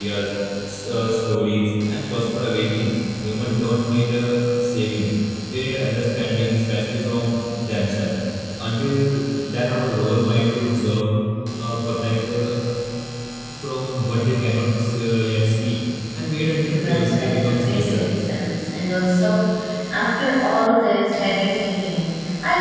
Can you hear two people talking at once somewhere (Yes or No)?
Yes